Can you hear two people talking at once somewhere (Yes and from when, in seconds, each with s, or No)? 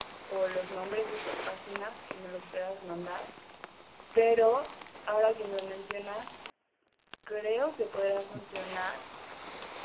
No